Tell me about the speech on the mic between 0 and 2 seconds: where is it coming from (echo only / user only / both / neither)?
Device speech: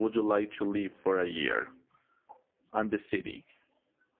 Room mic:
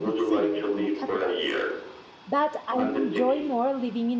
both